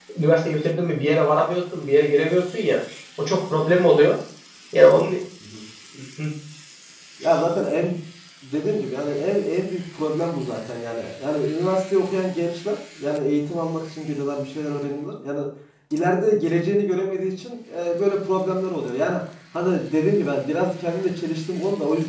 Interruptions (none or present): none